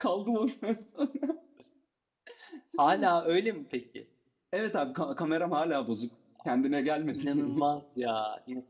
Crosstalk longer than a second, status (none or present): none